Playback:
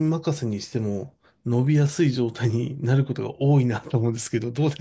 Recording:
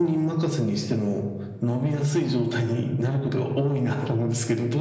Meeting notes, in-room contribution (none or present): none